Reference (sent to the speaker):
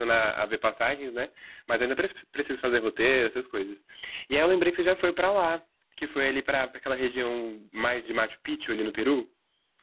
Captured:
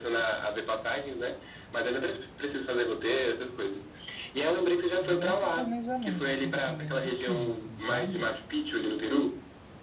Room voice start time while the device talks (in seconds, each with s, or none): 5.0 s